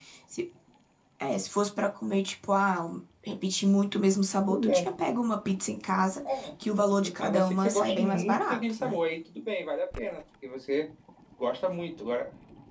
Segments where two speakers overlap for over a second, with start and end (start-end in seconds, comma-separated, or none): 7.2-9.0